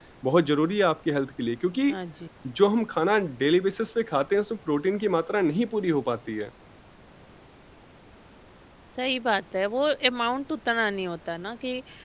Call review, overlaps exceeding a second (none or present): none